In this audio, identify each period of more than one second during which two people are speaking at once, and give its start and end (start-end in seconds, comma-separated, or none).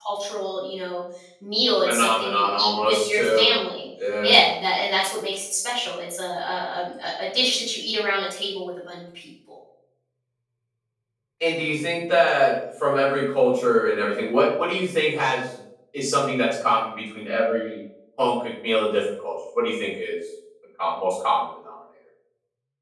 1.9-3.5